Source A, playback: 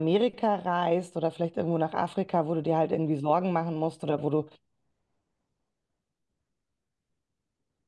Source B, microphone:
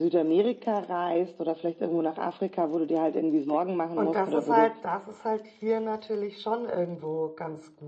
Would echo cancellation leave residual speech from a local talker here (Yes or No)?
Yes